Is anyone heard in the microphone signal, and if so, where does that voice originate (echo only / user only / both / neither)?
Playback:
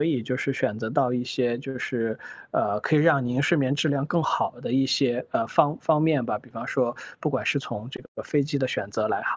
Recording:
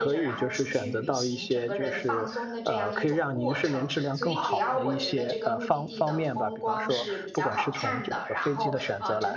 both